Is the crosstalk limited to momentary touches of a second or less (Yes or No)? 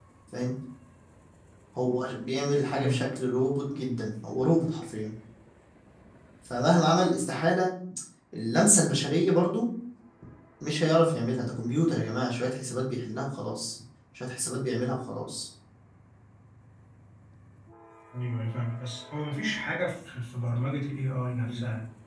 Yes